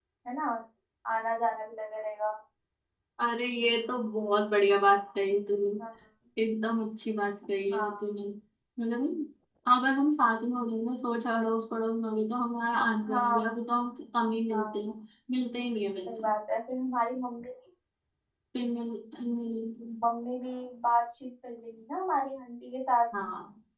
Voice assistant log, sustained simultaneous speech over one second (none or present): none